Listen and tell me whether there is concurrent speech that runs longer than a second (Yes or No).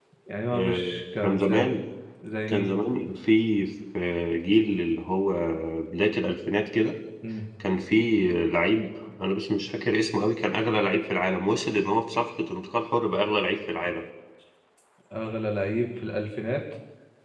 Yes